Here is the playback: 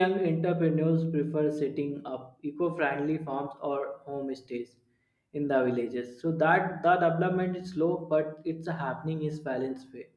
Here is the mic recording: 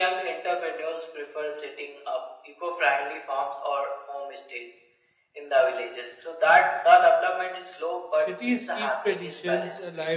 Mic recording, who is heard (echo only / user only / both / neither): both